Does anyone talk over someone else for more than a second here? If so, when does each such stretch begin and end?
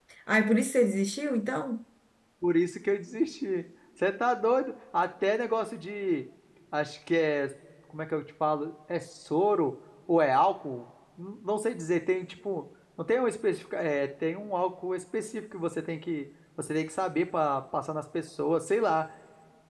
none

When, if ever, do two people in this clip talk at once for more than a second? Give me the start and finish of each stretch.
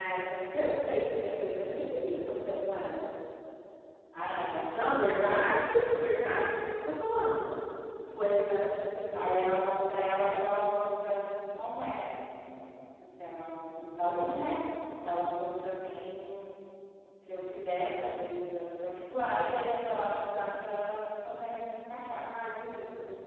none

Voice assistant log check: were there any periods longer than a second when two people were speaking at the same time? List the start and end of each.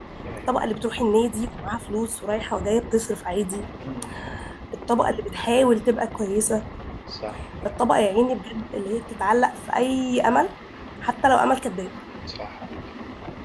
none

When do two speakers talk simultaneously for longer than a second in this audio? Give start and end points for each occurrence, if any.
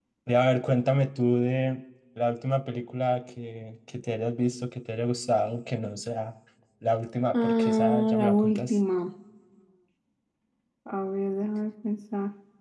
7.3-8.8

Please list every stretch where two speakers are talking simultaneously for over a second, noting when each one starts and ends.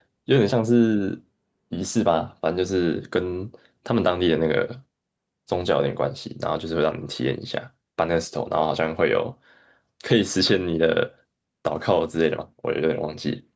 none

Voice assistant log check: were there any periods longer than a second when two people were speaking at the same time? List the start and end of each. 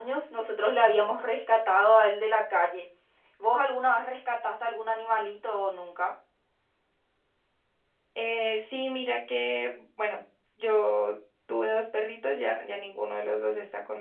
none

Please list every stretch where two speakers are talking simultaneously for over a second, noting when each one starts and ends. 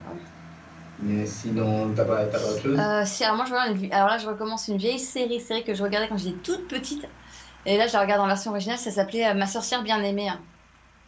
none

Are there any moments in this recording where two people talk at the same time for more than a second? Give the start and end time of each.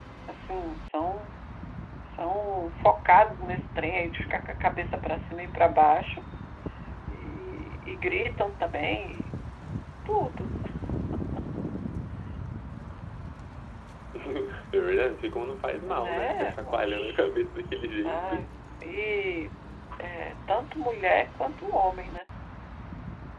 15.8-17.1

